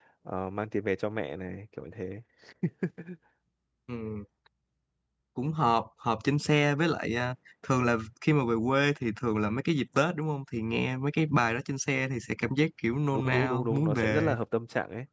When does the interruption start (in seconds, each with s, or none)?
13.1 s